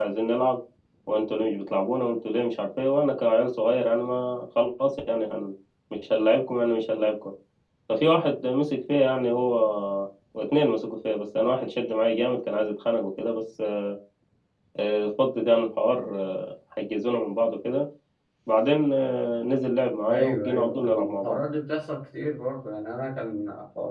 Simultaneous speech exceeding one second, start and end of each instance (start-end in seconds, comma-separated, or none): 20.1-21.4